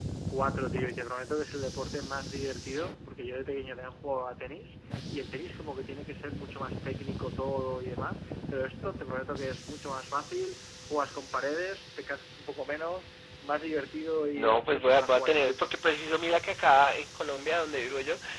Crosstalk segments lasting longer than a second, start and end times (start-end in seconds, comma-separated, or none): 14.4-15.7